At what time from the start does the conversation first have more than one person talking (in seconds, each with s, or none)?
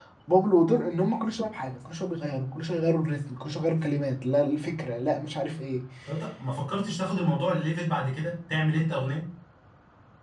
none